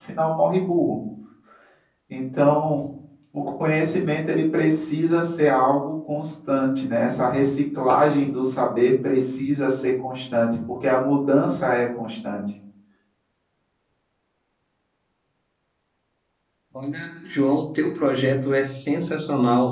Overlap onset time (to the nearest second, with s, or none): none